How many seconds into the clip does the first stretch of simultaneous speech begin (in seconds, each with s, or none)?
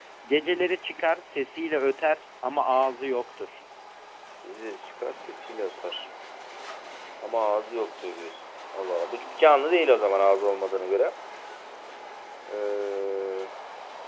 none